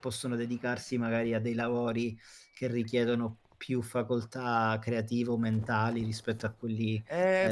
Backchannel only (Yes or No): No